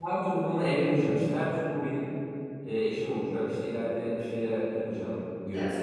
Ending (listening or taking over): listening